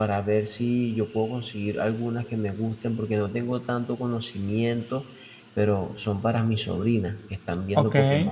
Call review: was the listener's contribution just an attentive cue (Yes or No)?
Yes